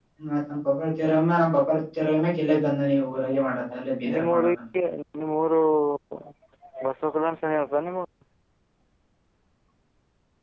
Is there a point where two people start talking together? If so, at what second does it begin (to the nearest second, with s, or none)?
3 s